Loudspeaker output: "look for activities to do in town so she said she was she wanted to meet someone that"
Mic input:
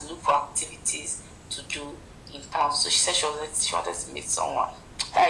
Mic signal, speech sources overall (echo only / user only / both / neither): echo only